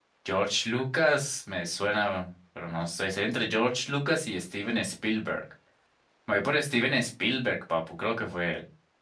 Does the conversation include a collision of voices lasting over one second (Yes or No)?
No